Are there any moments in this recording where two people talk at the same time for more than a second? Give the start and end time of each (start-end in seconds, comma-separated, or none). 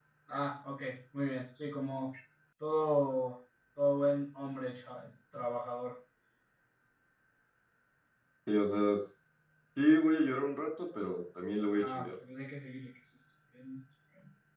none